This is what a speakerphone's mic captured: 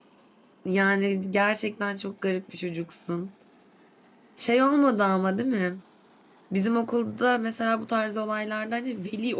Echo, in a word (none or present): none